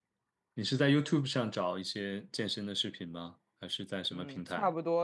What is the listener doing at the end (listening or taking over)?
taking over